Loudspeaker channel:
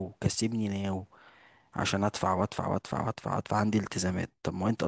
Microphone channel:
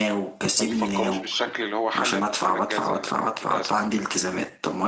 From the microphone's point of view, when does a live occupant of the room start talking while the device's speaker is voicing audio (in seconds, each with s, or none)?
0.6 s